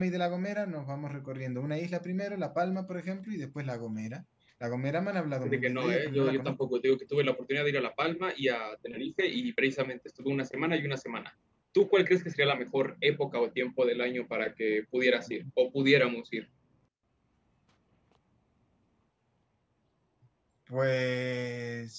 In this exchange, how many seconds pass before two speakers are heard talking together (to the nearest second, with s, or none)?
5 s